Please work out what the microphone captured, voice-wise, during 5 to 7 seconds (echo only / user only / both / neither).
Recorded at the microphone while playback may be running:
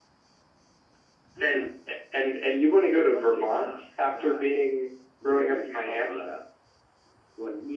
echo only